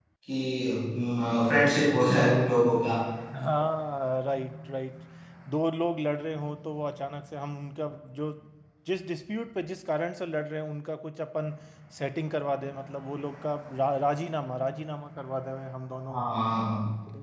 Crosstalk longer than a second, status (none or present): none